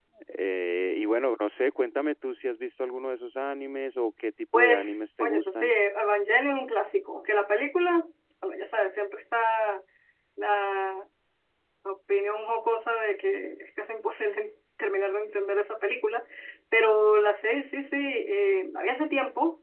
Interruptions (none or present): present